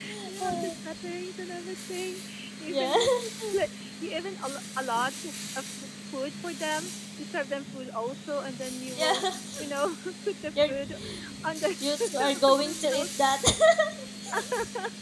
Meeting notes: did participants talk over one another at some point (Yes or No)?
Yes